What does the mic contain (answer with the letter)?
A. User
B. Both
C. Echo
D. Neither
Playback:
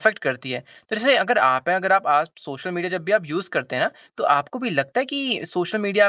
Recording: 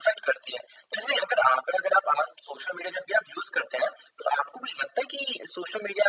C